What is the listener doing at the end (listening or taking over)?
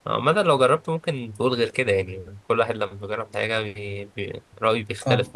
taking over